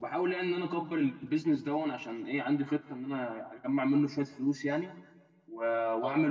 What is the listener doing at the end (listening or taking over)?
listening